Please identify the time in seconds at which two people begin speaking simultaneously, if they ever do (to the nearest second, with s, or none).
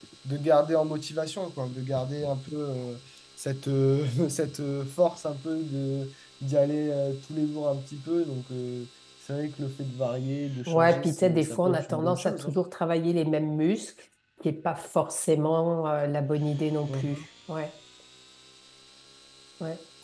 11 s